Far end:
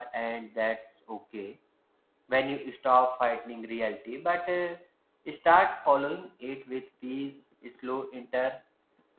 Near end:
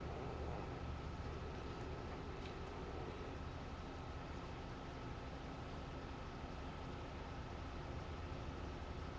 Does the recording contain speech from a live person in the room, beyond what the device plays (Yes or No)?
No